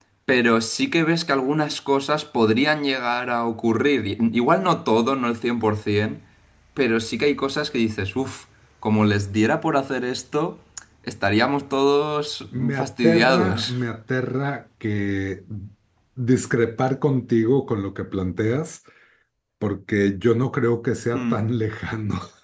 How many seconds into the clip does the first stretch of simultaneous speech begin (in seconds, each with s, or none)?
12.5 s